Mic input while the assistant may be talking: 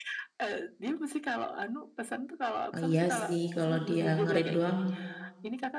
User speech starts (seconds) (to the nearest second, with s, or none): 3 s